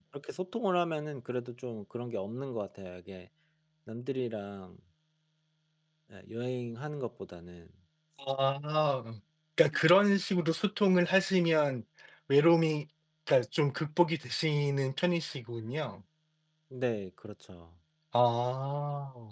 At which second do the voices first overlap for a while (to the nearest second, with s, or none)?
none